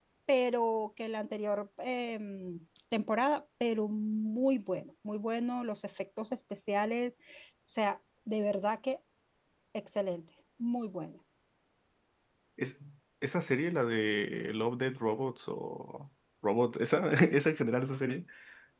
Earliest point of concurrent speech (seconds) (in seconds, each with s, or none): none